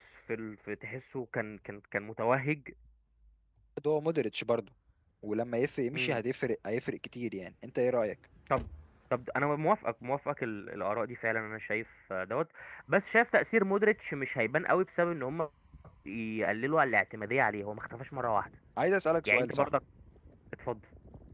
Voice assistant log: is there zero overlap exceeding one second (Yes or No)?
Yes